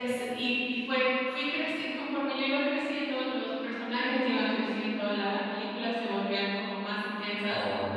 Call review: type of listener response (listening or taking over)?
listening